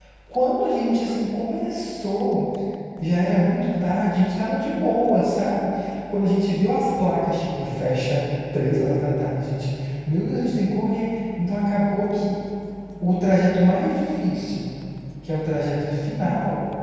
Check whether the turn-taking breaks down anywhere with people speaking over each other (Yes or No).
No